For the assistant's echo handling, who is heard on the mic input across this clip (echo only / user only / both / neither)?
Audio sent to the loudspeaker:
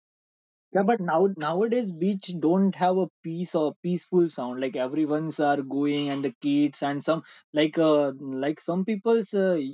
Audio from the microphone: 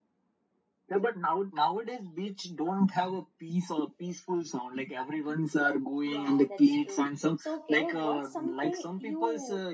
both